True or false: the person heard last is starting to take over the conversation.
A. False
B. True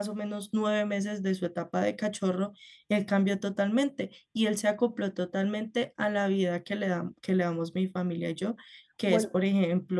A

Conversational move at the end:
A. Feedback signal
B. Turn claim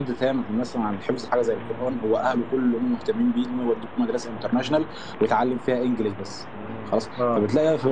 A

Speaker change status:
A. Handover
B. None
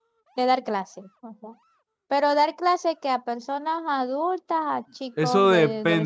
A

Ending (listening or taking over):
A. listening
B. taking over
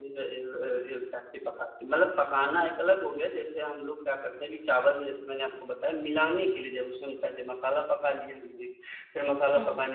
A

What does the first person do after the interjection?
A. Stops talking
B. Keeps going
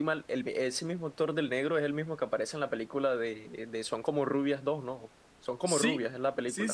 A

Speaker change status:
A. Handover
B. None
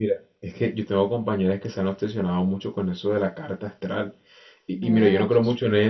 B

